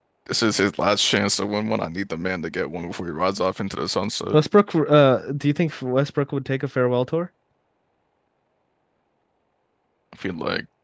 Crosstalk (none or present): none